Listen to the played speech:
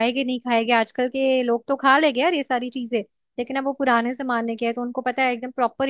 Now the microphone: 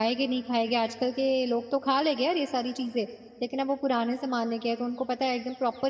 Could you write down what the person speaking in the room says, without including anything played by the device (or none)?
none